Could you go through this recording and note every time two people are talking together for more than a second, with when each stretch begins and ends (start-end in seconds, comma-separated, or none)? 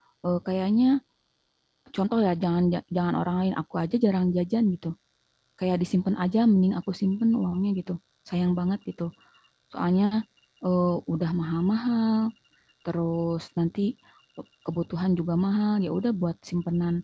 none